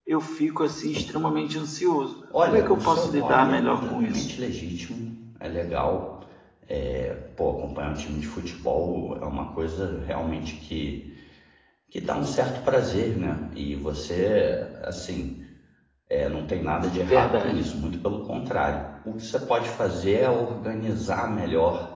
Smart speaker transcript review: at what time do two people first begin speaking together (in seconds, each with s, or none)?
2.5 s